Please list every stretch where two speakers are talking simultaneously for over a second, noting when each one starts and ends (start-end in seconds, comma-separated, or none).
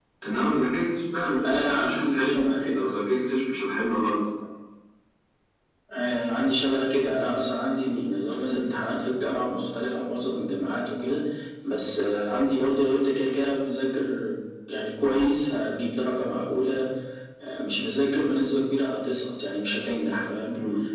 1.4-2.9